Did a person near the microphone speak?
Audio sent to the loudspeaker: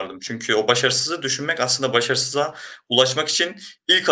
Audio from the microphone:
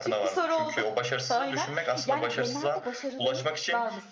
Yes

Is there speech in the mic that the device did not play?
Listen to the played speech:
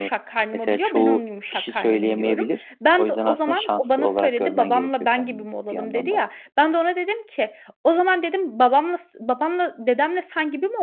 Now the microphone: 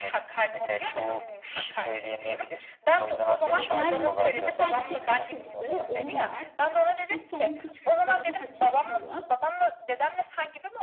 Yes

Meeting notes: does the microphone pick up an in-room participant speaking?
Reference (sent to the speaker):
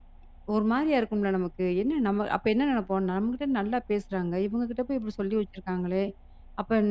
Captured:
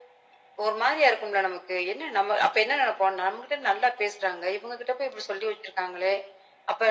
No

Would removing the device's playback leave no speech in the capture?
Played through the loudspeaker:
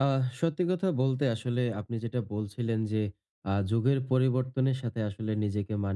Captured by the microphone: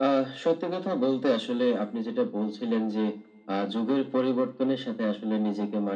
Yes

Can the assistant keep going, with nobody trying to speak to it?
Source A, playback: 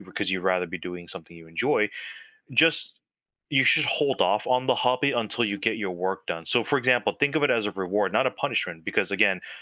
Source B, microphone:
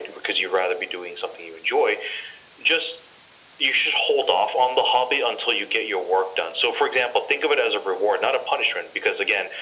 Yes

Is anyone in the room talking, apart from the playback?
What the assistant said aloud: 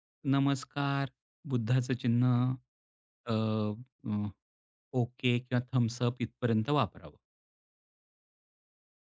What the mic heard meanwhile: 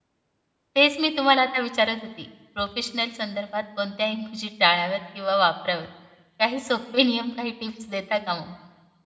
Yes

